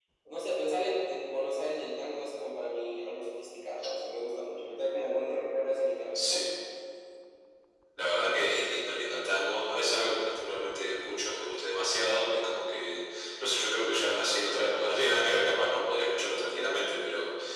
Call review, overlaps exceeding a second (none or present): none